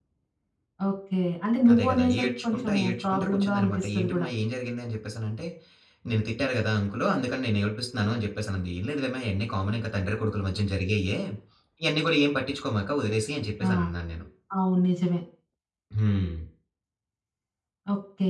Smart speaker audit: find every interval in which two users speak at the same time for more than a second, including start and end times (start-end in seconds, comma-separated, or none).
1.7-4.3